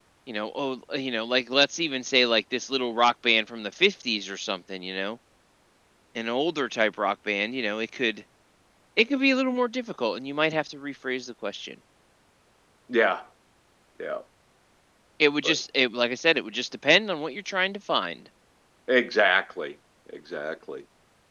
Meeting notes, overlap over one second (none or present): none